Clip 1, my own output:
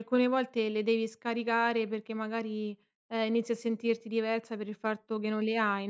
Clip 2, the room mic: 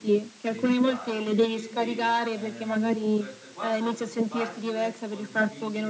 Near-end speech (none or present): present